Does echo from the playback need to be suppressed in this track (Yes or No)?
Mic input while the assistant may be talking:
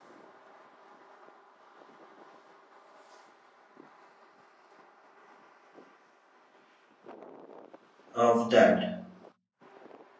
No